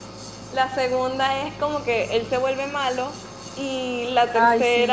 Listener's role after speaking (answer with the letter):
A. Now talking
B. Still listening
B